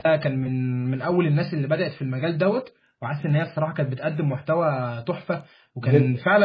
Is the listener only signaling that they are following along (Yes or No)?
Yes